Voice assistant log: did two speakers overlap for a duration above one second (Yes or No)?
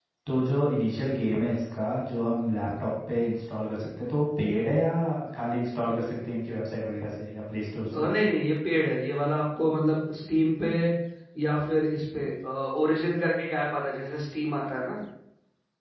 No